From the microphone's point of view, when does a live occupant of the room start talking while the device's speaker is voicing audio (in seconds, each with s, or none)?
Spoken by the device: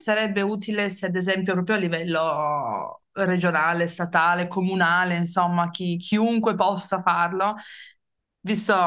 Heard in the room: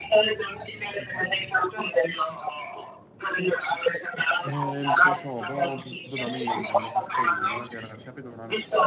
4.4 s